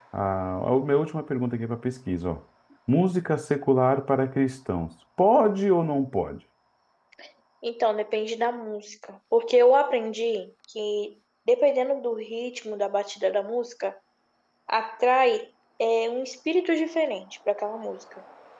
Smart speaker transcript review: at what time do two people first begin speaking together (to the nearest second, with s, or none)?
none